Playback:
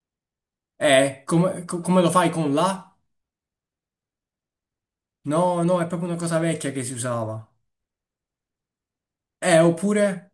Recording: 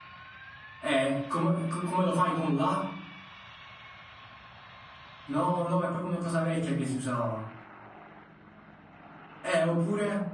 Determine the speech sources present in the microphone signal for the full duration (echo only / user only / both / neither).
echo only